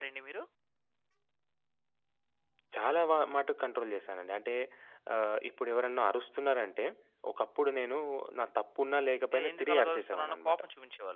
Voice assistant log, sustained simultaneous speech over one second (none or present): present